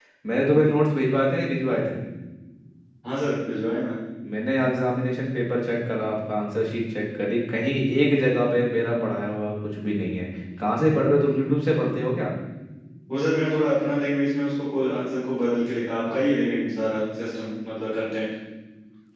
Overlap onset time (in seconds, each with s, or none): none